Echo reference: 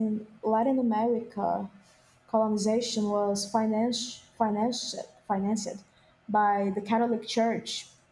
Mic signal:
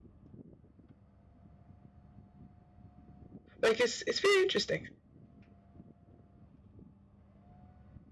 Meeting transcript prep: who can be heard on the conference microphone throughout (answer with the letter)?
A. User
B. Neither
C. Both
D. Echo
A